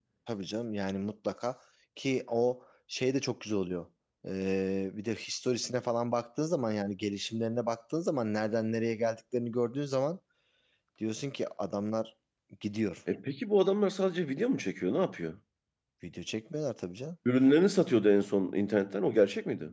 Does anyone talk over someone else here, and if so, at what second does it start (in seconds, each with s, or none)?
none